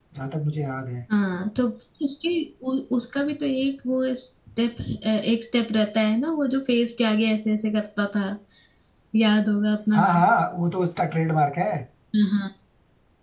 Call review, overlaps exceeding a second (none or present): none